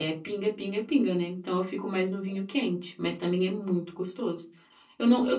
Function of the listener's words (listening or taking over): listening